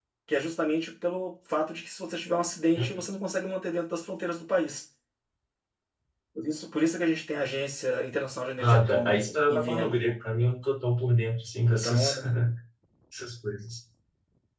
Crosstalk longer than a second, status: present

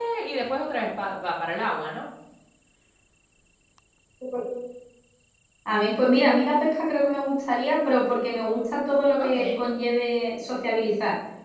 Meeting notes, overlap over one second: none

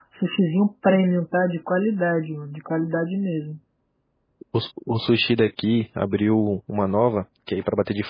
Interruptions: none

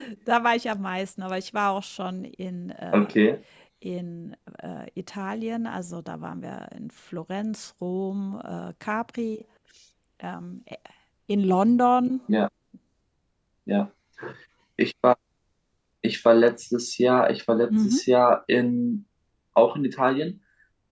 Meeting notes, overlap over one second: none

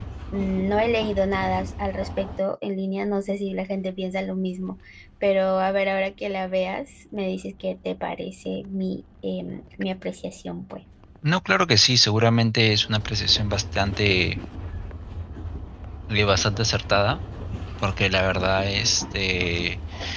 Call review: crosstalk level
none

